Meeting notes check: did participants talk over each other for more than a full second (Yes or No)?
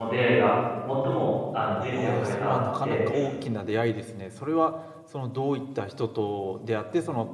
Yes